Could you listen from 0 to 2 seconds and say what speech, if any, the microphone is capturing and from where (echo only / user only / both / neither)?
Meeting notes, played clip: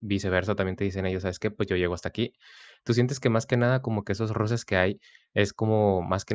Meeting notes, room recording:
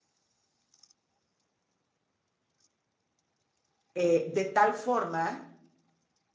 neither